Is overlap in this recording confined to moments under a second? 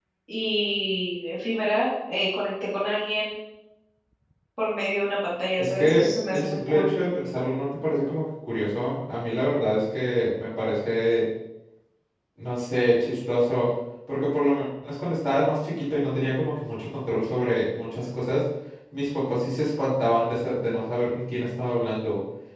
No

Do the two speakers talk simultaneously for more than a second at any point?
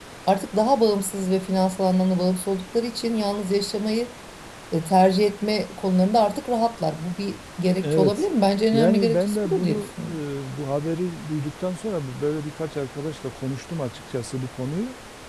Yes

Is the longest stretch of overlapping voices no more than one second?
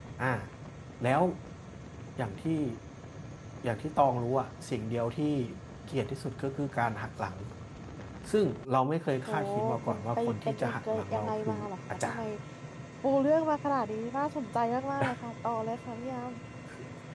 No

